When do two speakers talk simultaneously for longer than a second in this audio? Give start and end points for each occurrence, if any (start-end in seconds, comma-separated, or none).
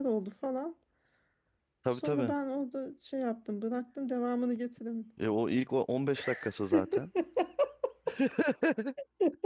none